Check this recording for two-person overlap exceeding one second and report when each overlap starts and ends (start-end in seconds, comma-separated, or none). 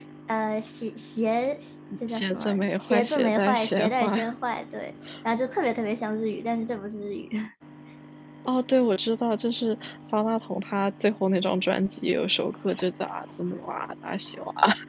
2.1-4.3